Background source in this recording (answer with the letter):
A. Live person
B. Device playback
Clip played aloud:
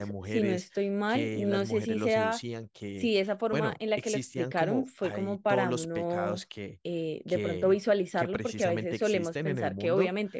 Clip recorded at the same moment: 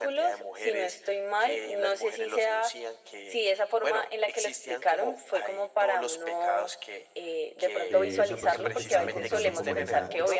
A